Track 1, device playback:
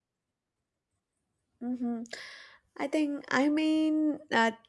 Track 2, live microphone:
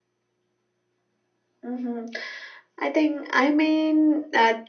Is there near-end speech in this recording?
No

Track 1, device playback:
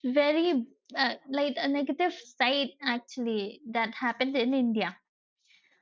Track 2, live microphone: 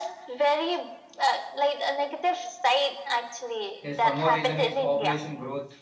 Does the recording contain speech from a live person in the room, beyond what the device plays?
Yes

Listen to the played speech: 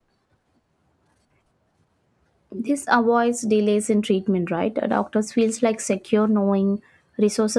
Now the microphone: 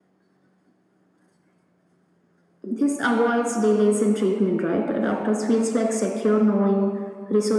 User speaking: No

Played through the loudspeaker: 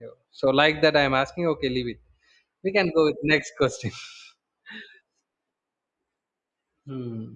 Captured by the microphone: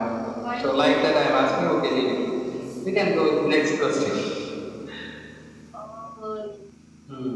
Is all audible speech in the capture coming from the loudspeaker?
No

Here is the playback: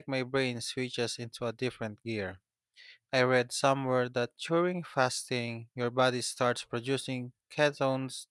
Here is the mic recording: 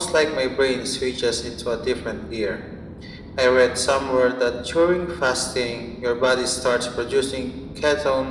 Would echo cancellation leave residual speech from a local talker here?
No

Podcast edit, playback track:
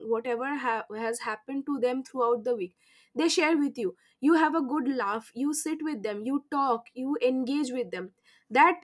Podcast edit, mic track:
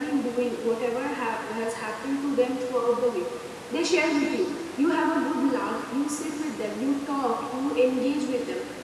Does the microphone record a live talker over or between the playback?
No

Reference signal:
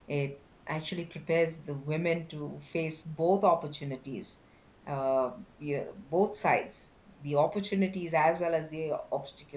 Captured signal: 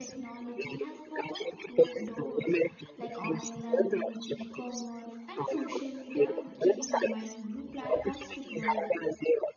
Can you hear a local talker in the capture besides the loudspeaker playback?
Yes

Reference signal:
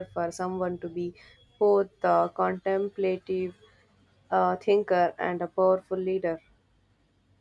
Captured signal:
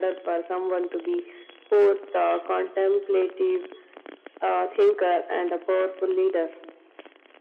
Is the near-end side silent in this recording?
Yes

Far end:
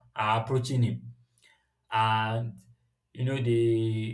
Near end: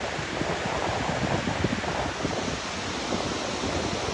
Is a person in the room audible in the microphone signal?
No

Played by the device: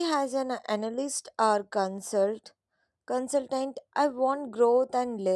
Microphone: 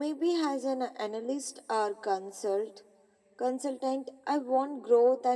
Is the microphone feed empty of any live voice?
Yes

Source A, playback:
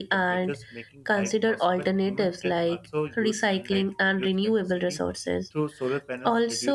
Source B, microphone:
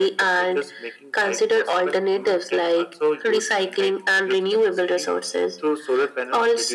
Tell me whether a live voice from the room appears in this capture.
No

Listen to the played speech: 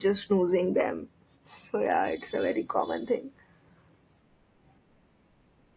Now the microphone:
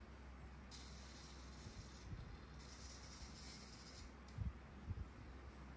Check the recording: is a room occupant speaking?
No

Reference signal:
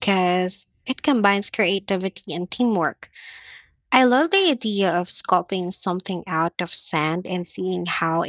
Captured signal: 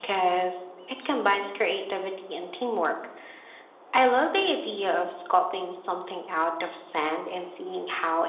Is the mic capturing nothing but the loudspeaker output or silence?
Yes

